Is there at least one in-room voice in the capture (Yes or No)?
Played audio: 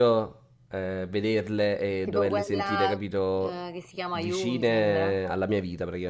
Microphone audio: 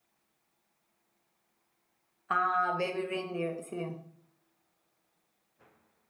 Yes